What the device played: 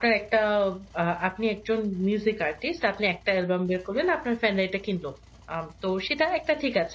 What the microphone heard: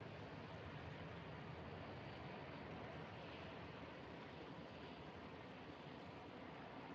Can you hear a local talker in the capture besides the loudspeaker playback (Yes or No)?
No